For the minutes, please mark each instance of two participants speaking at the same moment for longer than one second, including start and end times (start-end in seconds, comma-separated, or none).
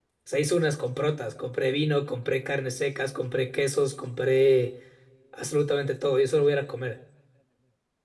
none